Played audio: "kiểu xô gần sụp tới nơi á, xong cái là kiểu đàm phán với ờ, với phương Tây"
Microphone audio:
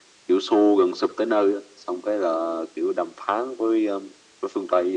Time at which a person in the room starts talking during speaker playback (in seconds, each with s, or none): none